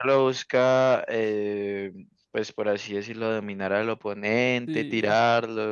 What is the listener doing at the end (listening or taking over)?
listening